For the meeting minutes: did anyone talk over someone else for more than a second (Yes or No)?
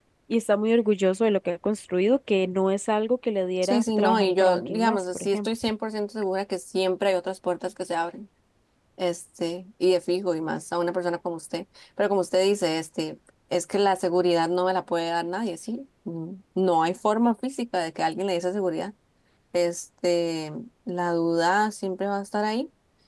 Yes